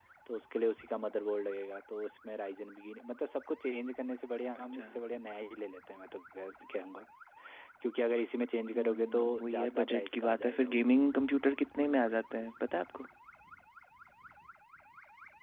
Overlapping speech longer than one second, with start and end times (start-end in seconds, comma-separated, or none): 8.7-10.8